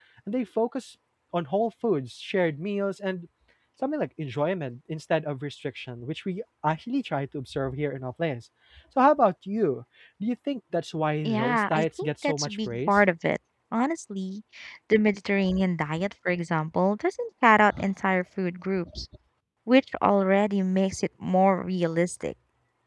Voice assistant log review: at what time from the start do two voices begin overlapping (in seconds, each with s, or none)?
11.2 s